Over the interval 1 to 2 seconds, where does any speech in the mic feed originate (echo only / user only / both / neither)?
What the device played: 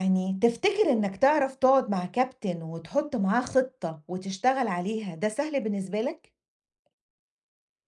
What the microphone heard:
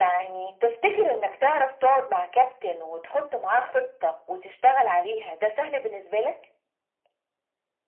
echo only